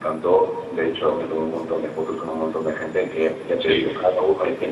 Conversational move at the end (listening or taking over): listening